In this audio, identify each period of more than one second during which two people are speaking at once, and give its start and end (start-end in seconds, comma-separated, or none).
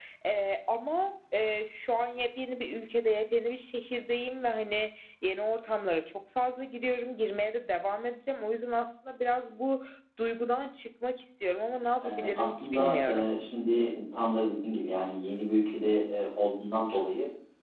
12.0-13.3